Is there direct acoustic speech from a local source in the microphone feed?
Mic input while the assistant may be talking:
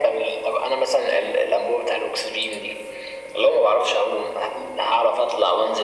No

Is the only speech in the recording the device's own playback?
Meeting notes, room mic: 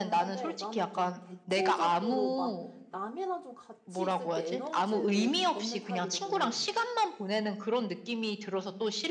No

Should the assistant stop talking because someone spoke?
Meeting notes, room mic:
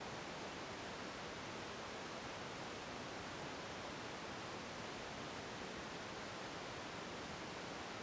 No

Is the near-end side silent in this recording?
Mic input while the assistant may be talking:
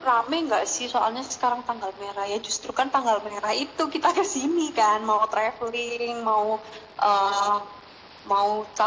Yes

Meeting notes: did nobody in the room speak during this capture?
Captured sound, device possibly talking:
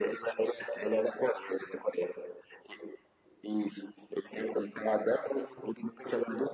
Yes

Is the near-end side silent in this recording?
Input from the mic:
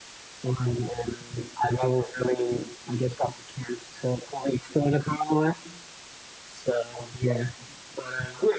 Yes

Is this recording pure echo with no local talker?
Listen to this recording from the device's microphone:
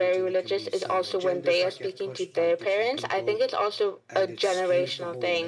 No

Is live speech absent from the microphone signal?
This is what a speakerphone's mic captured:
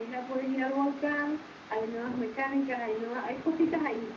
Yes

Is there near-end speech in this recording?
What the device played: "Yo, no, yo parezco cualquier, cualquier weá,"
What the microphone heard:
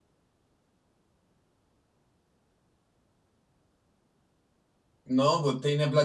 Yes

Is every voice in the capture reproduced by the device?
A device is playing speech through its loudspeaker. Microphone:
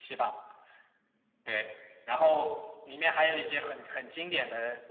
Yes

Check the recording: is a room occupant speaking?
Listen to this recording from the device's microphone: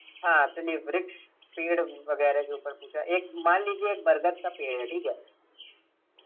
No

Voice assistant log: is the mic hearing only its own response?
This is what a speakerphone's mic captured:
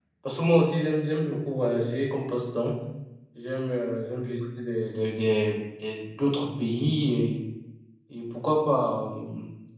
No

